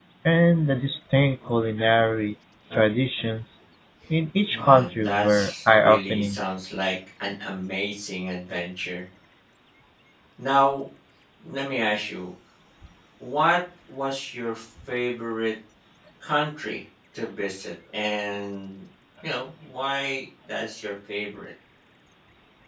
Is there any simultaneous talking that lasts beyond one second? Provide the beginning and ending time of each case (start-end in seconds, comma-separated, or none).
4.5-6.4